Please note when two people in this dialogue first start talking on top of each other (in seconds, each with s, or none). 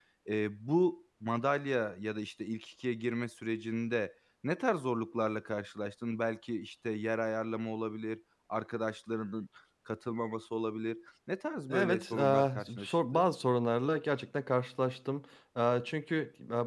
11.7 s